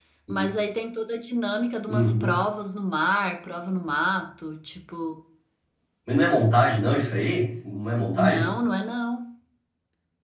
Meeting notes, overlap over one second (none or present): none